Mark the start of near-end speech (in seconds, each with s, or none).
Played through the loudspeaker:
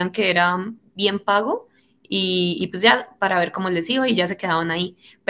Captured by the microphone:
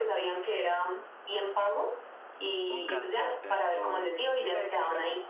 2.7 s